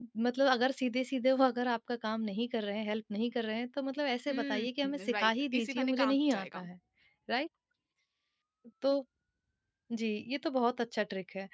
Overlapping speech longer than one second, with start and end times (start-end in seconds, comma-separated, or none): 4.3-6.6